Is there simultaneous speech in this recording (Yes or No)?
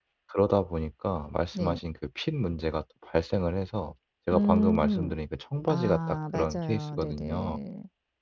Yes